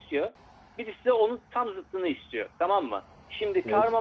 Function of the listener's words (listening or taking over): listening